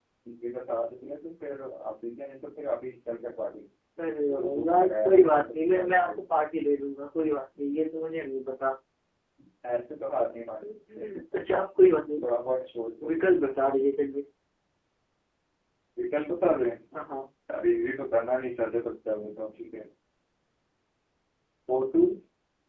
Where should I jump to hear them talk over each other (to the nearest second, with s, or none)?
4 s